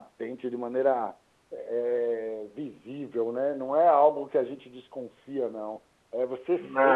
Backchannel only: Yes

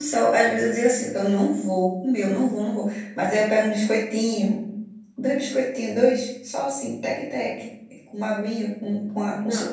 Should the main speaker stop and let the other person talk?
Yes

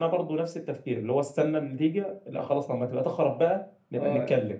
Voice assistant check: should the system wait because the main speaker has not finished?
No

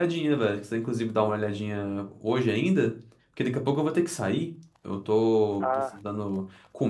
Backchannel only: Yes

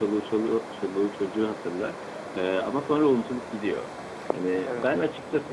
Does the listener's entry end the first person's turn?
No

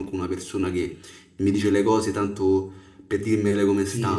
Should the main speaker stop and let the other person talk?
Yes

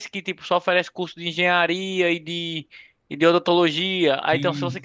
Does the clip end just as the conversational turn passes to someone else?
No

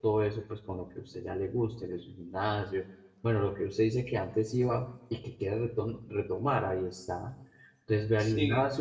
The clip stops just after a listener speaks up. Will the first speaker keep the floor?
Yes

